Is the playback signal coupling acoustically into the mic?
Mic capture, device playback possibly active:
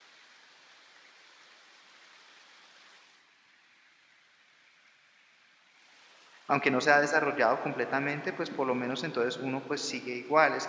No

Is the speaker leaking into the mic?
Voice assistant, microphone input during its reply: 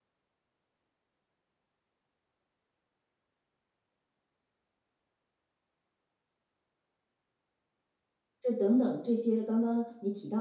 No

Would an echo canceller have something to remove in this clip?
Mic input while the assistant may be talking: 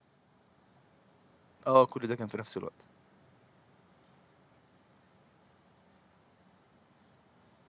No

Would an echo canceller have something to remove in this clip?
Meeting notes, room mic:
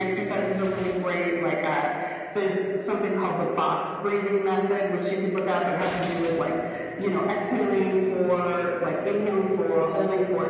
Yes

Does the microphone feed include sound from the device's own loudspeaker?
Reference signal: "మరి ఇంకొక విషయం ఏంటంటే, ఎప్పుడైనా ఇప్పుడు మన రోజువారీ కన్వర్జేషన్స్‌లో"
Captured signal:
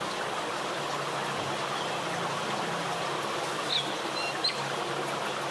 No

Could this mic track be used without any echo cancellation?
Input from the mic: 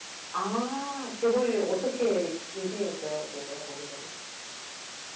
Yes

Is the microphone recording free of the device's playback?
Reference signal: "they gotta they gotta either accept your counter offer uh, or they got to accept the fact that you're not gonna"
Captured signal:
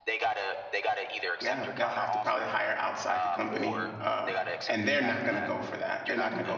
No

